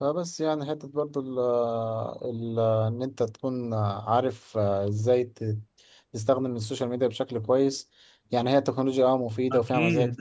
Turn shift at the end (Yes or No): Yes